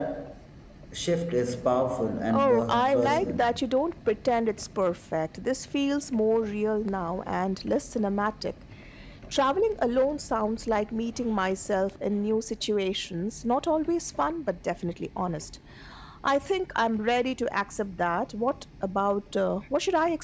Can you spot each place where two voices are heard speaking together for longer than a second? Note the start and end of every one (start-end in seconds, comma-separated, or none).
2.3-3.6